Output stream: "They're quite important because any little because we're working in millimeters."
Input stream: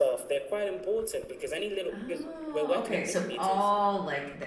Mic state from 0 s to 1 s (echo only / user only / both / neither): echo only